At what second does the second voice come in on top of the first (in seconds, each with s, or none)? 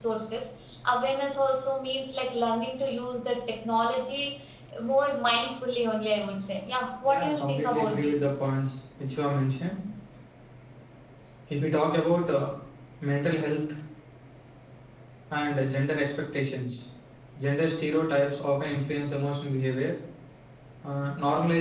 7.0 s